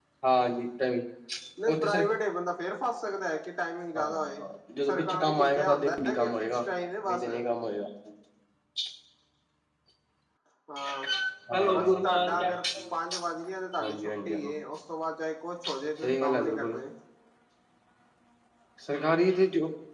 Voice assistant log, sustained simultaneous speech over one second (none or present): present